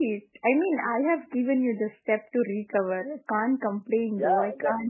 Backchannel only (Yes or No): No